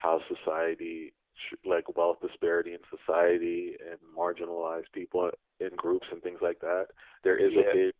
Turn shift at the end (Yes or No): No